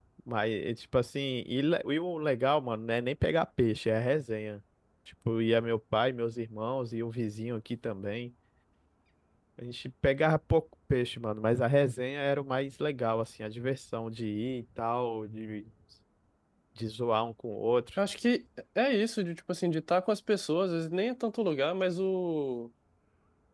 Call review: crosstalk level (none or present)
none